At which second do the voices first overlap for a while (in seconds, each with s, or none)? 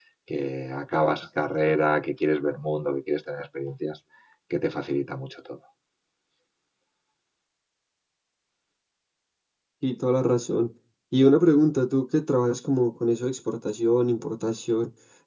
none